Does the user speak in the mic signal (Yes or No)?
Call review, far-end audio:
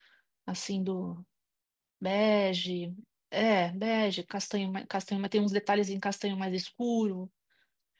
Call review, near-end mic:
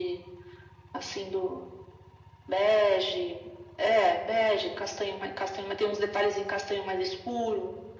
No